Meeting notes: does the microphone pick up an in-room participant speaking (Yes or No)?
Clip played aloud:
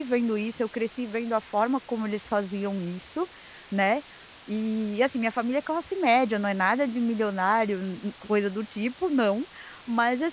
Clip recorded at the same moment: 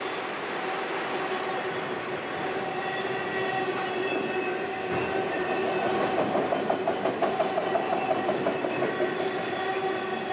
No